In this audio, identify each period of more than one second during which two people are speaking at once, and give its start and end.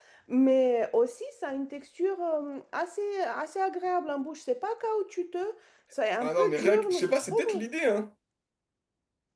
6.2-7.6

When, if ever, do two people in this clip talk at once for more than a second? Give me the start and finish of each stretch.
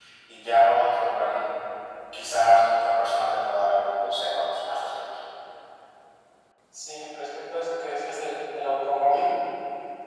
none

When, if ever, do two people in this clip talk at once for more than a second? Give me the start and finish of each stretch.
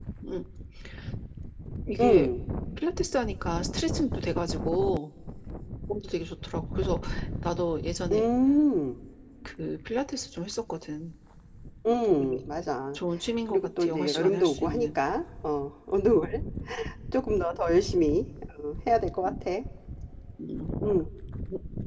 13.5-15.0

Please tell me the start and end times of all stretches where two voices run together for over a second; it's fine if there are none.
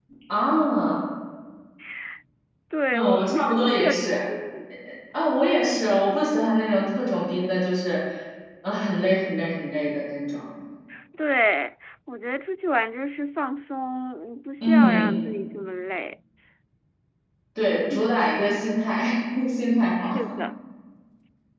2.9-4.2

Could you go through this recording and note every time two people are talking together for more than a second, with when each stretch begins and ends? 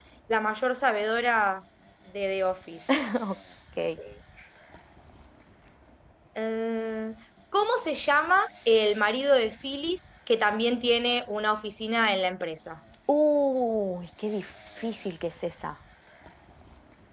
none

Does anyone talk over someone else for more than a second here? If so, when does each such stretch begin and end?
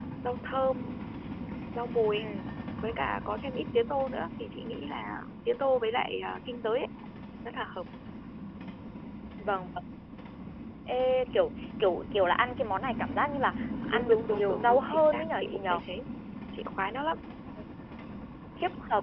13.9-15.8

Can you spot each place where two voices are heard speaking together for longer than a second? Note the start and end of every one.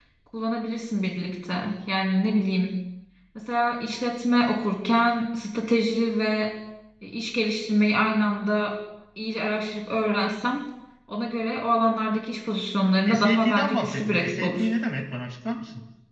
13.1-14.7

